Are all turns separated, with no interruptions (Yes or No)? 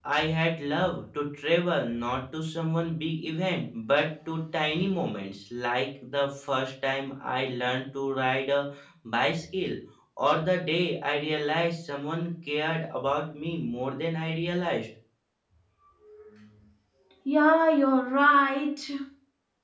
Yes